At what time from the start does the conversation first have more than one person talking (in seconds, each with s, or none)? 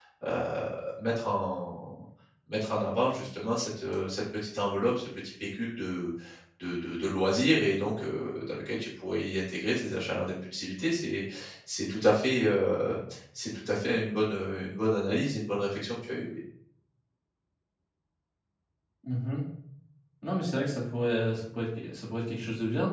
none